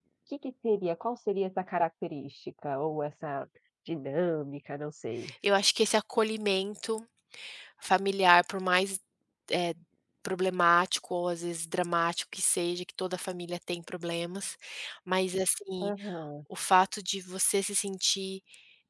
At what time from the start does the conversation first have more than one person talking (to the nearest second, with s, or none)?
none